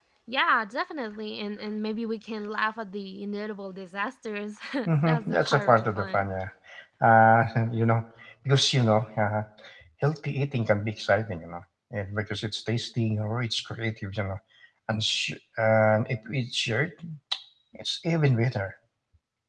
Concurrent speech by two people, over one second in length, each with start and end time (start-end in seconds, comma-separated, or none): 5.0-6.3